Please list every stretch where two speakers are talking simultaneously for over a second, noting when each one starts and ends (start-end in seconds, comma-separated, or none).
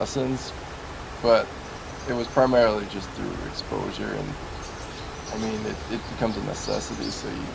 none